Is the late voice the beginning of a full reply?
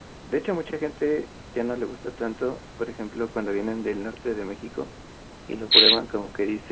No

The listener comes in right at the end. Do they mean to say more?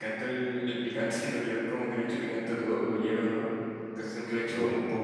No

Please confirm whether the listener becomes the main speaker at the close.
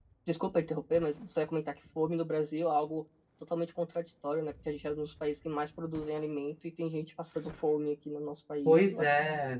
Yes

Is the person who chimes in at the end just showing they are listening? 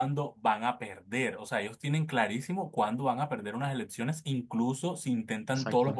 Yes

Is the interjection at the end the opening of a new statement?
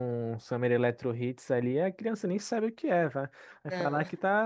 No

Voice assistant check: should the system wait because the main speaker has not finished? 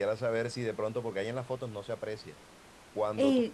Yes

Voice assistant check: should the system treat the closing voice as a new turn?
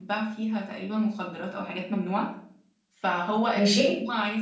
No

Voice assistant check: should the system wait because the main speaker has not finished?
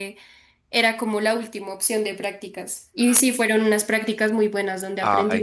No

